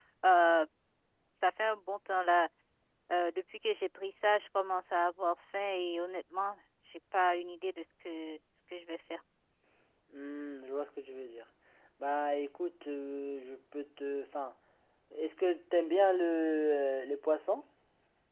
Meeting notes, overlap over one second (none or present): none